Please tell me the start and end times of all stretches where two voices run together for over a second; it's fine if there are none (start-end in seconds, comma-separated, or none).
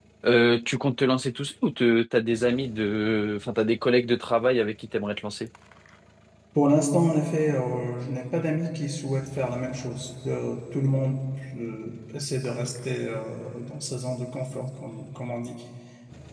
none